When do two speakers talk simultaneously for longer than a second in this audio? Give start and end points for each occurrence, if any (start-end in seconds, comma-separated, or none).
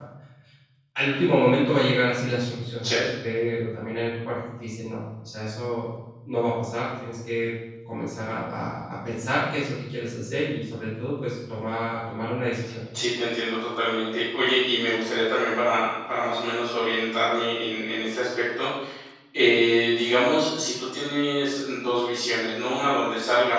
none